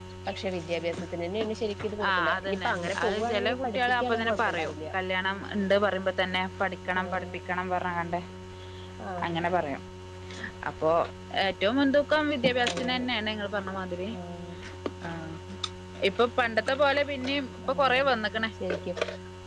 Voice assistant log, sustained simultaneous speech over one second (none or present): present